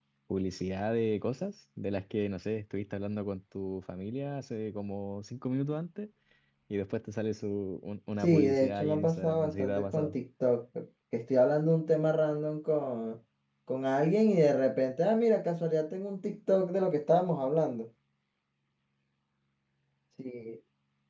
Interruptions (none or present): present